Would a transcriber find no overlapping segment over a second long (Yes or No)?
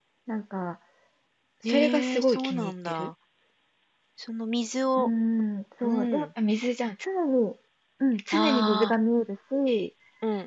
No